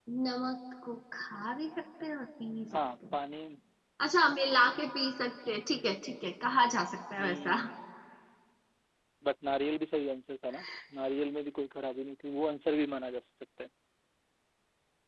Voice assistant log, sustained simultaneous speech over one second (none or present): none